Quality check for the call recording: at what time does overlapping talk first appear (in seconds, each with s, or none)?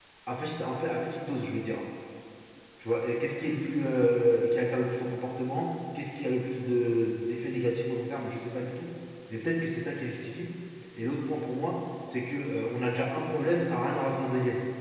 none